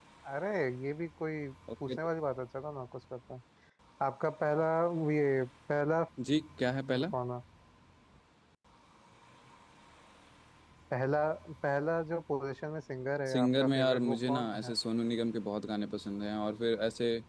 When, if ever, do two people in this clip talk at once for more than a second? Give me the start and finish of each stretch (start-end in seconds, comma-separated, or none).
13.3-14.7